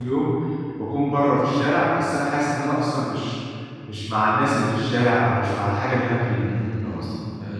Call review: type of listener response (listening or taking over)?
taking over